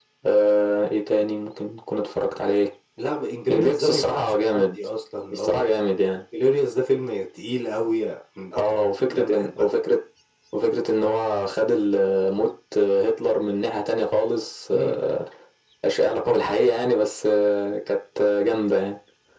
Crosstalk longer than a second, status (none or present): present